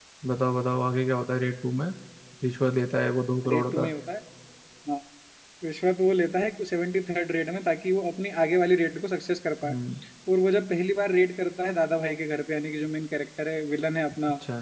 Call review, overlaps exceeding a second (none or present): none